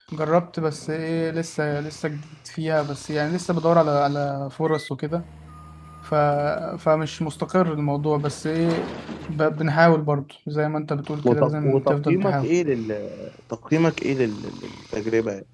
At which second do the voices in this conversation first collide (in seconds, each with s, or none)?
11.2 s